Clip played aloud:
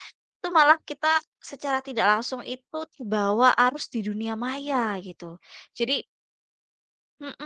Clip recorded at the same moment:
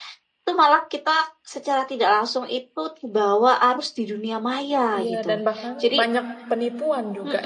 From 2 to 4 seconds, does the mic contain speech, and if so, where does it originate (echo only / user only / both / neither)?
echo only